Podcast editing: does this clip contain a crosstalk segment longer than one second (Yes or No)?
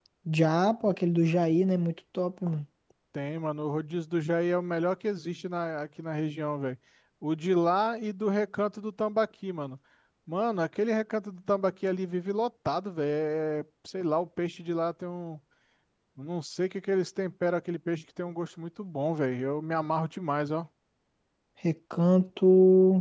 No